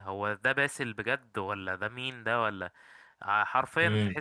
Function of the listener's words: taking over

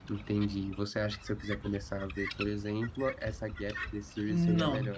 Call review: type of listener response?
taking over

